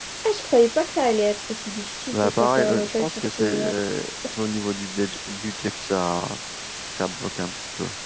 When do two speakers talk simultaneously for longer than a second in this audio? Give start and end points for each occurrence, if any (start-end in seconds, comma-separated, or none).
2.1-3.7